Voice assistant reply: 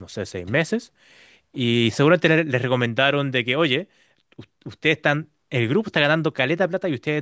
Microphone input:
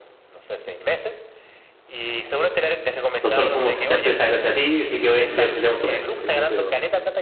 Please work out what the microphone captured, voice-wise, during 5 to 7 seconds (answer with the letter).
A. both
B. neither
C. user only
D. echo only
A